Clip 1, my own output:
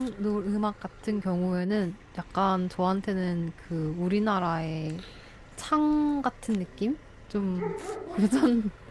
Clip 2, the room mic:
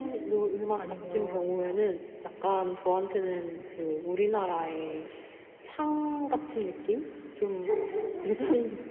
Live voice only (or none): 아니면 막